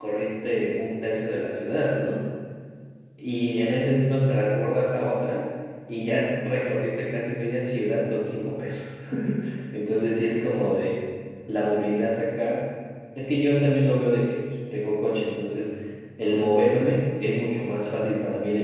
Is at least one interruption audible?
No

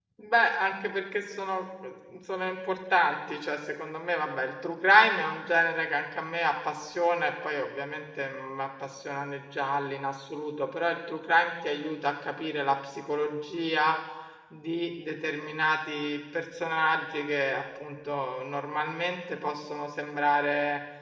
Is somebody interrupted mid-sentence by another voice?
No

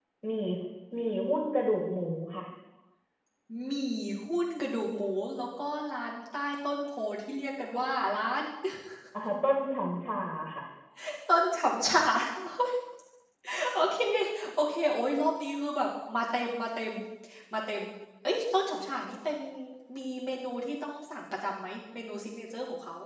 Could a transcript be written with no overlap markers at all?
Yes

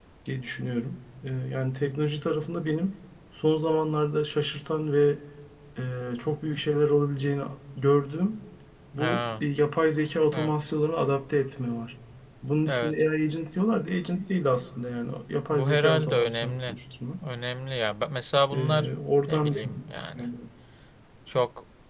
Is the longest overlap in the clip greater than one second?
Yes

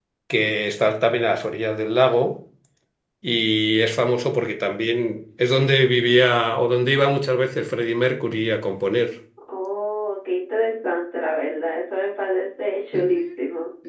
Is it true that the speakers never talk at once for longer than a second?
Yes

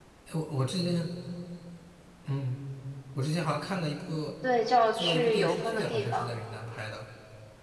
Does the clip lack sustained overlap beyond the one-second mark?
No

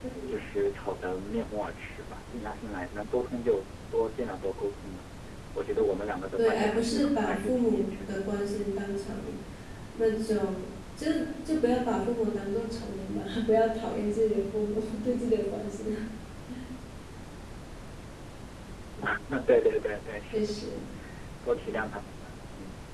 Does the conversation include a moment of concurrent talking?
Yes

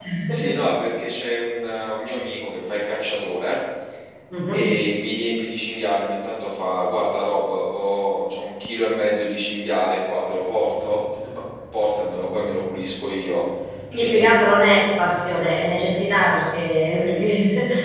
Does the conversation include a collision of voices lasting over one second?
No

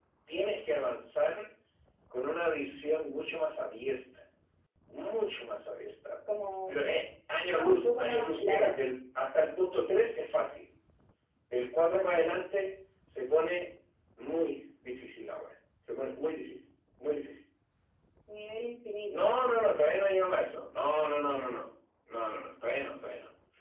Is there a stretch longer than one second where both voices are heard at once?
Yes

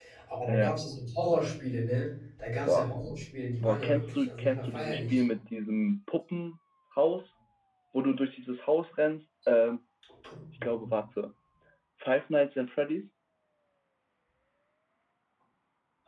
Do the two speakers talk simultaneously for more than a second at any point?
Yes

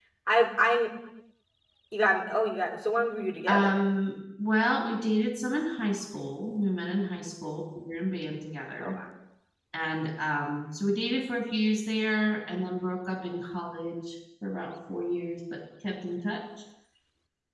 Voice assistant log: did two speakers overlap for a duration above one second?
No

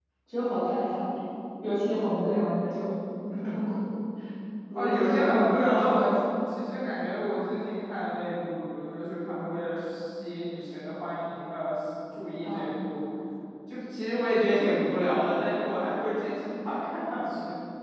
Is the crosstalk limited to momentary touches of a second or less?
No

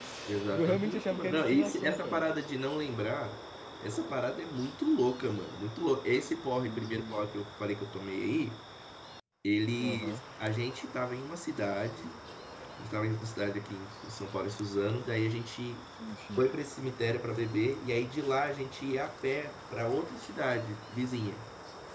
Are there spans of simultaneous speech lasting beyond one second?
Yes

